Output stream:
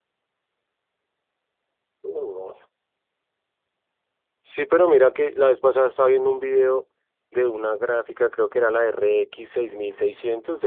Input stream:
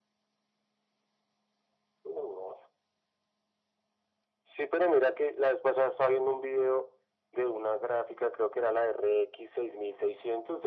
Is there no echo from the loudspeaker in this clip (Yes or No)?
No